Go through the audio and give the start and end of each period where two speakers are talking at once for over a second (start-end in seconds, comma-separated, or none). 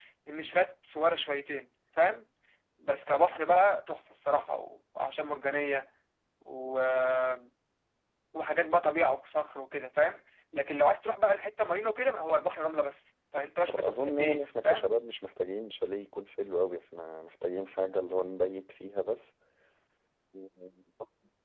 13.7-14.9